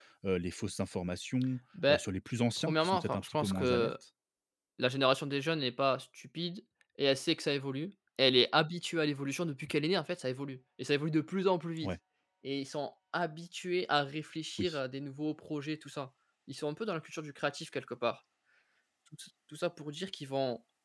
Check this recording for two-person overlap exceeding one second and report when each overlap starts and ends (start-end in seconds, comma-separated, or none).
2.6-3.9